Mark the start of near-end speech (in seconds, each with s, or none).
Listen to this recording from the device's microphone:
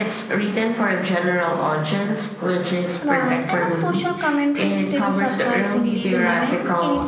3.0 s